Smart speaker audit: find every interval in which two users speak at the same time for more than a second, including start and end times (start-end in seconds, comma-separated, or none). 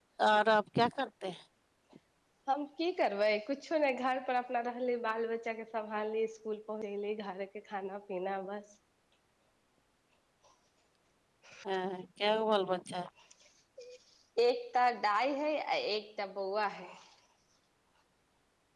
none